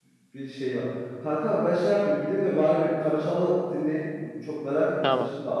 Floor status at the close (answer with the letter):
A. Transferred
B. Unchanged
B